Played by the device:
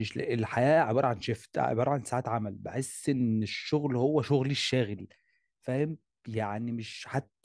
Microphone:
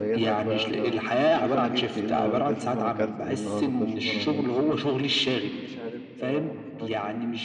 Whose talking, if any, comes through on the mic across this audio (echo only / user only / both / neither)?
both